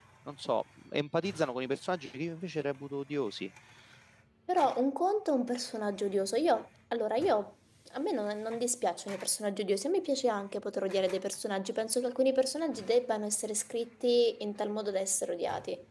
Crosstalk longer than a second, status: none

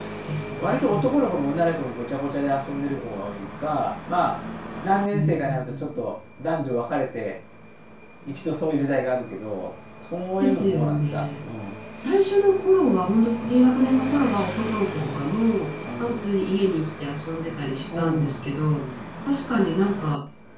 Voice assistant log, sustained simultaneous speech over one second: present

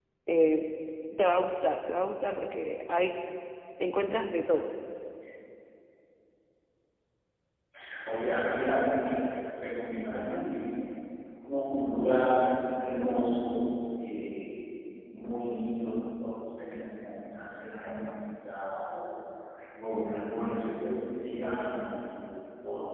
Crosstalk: none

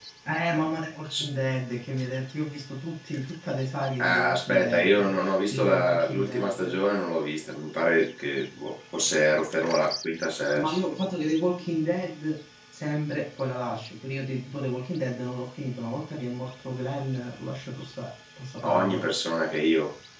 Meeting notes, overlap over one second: present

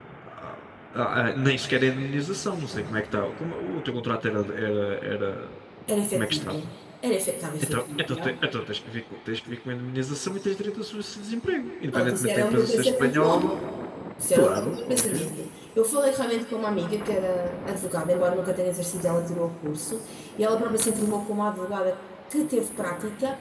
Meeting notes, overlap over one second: present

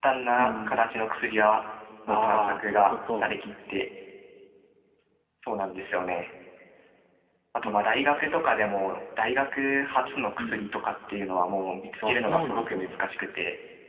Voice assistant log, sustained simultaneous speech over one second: present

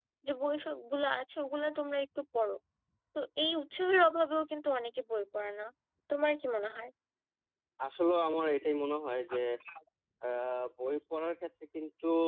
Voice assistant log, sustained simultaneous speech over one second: none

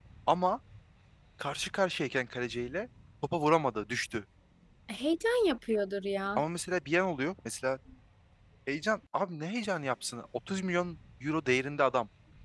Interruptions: none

